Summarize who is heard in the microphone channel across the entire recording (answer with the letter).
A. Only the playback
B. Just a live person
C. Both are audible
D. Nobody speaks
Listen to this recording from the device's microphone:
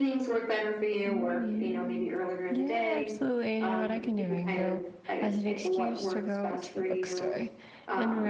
C